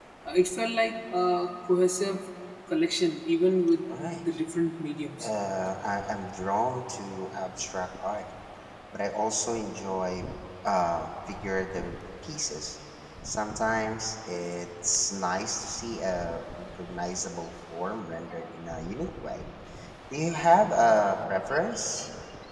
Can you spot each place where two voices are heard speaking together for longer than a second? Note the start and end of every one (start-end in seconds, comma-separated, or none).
none